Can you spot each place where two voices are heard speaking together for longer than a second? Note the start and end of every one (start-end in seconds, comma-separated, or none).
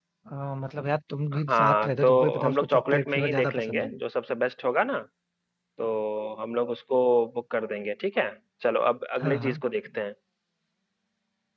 1.3-3.9